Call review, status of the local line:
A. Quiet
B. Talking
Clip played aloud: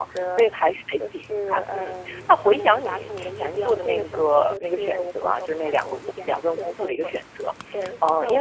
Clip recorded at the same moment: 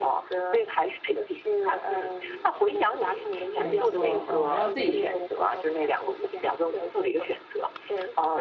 B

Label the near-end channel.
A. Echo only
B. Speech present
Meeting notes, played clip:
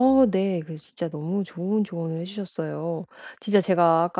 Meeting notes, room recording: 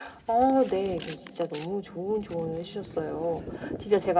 A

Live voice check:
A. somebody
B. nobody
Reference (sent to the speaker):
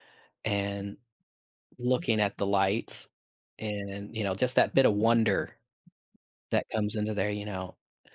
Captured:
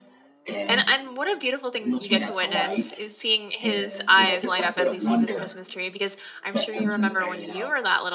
A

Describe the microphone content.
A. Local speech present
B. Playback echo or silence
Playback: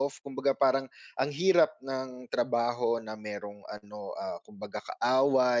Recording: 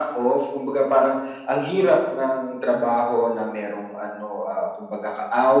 B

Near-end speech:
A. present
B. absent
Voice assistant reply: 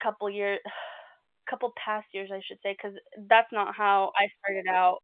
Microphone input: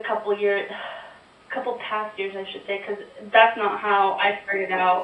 B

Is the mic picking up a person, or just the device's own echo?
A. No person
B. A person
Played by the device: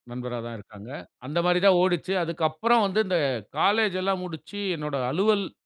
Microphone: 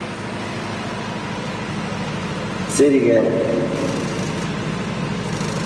B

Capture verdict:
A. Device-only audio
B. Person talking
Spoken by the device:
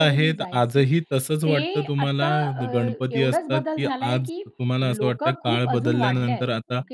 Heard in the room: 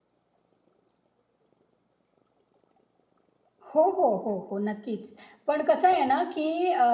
B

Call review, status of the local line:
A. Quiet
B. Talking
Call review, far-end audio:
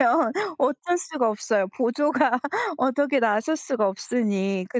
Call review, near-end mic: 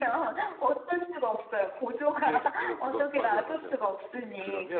B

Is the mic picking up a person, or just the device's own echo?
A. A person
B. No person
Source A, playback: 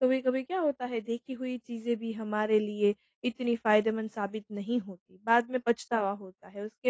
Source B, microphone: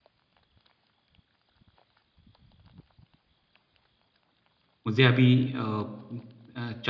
A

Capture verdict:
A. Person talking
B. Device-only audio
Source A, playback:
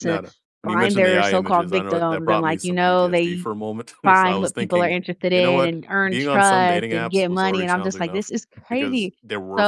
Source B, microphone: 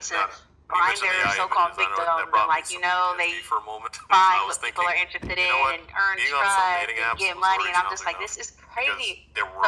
B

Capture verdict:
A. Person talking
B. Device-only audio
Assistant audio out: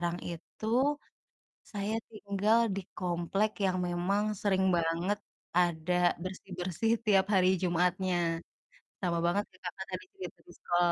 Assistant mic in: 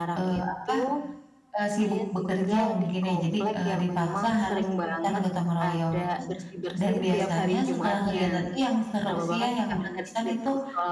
A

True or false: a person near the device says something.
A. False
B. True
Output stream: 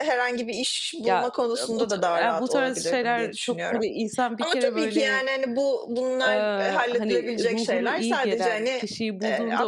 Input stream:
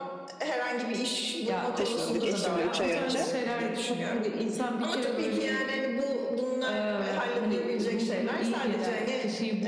B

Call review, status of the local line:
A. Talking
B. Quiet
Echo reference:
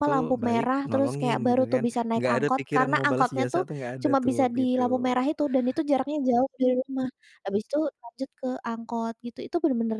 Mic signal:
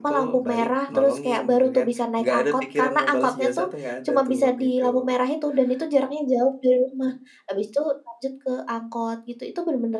B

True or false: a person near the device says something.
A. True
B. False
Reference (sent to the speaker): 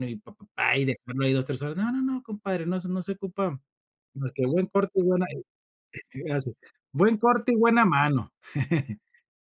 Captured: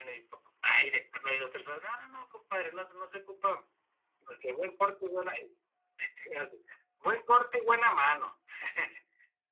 B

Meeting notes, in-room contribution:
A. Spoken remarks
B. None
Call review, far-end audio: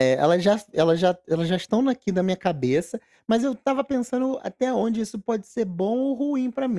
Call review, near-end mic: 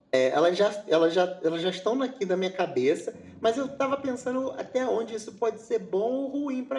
B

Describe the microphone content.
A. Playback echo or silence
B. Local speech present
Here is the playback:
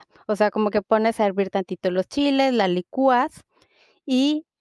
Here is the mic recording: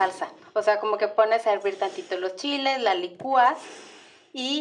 A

